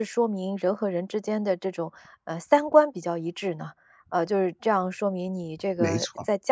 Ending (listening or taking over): listening